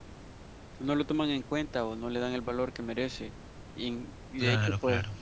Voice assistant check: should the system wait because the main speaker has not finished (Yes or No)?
Yes